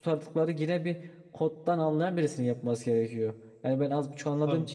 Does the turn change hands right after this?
No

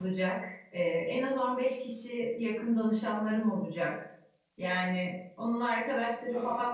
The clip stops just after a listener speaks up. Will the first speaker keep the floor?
Yes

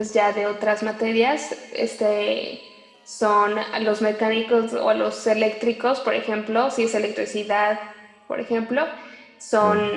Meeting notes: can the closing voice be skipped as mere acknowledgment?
Yes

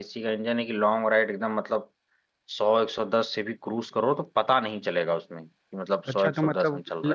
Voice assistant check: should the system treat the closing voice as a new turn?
Yes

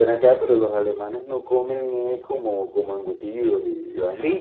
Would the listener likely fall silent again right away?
No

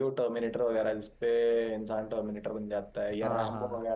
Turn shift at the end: Yes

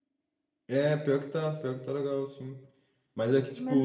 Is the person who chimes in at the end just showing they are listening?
Yes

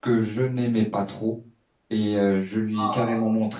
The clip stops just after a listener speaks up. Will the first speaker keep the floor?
Yes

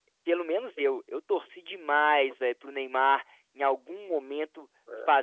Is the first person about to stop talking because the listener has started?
No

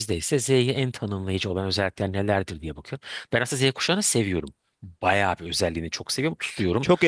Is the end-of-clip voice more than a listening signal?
Yes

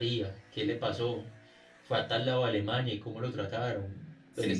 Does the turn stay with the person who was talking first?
Yes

